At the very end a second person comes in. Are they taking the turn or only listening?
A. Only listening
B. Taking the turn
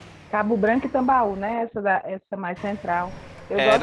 B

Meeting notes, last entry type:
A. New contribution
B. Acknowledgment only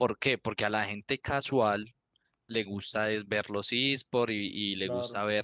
B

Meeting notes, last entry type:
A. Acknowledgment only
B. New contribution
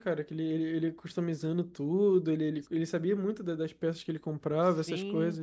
B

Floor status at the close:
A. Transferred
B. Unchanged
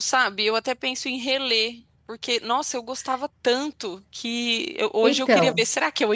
B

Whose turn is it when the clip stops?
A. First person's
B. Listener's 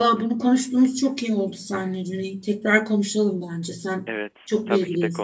B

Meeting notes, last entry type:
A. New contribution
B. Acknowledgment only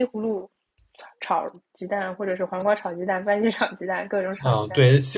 A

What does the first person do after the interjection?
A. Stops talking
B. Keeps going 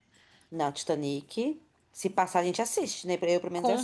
A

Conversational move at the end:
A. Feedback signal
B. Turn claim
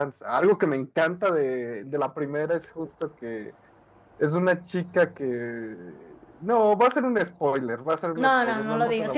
B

